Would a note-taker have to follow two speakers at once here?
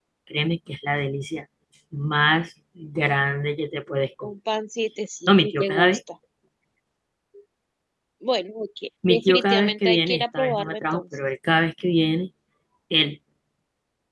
Yes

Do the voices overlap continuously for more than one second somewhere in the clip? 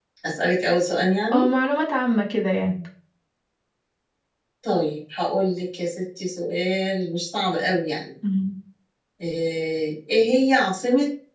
No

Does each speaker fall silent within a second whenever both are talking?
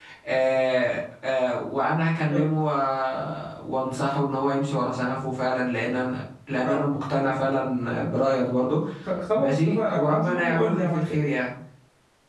No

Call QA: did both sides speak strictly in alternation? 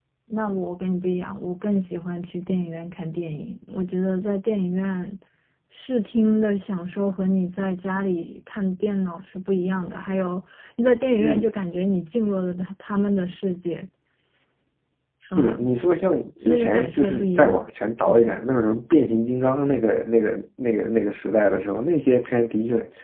No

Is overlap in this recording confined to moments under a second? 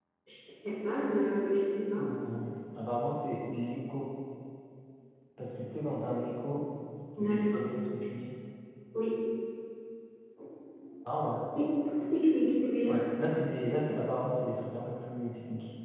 Yes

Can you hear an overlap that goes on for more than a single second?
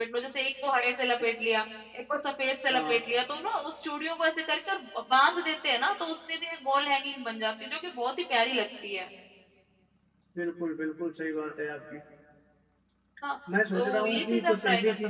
Yes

